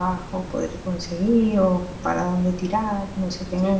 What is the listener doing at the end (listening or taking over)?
taking over